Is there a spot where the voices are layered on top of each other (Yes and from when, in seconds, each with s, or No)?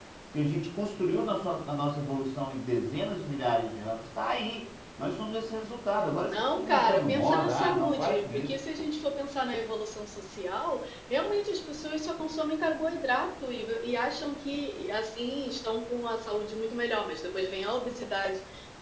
Yes, from 6.3 s